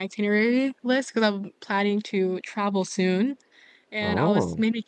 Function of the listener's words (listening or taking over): listening